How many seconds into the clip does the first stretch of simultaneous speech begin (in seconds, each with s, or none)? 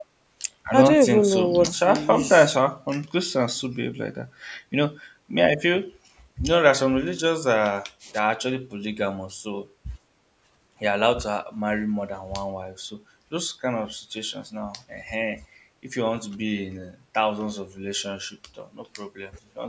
0.7 s